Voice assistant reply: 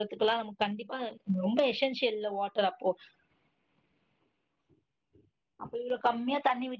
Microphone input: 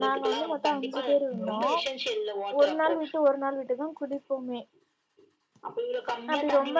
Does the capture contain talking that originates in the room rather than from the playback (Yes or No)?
Yes